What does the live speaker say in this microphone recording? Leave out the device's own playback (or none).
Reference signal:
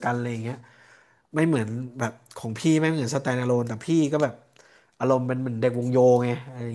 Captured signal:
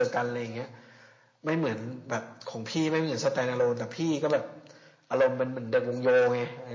none